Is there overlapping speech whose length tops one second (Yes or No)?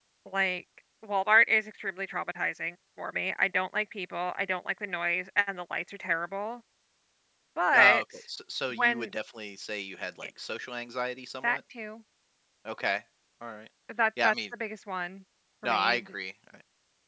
No